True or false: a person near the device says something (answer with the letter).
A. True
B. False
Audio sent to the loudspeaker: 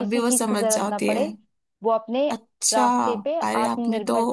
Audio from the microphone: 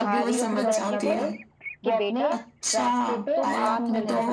A